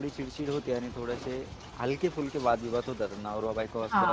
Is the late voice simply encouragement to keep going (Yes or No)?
No